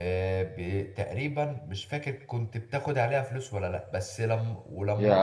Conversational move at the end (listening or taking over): listening